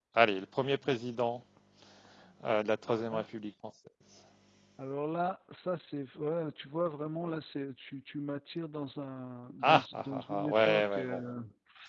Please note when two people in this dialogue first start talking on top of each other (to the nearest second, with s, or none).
10 s